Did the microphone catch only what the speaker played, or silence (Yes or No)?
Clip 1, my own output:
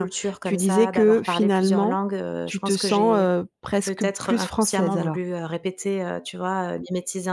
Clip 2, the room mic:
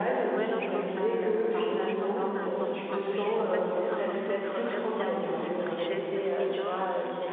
No